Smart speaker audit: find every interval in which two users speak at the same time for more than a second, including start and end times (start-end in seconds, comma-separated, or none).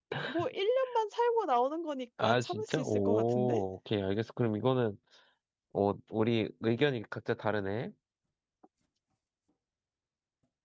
2.2-3.6